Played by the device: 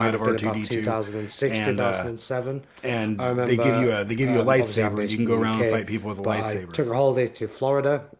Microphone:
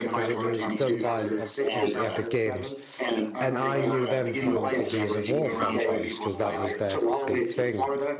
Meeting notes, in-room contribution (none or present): present